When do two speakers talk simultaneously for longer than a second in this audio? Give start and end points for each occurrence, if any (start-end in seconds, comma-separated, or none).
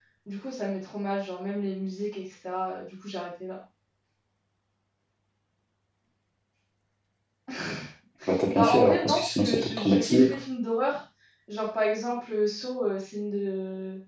8.5-10.4